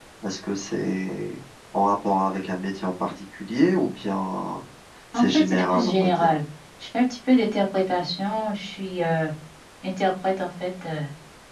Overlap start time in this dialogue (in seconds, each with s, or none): 5.1 s